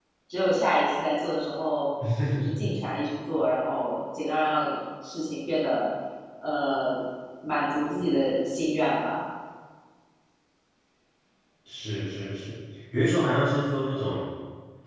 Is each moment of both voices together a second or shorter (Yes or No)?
Yes